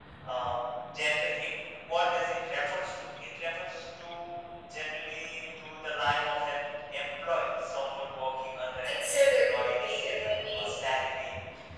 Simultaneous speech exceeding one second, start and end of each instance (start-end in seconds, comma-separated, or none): 8.8-10.7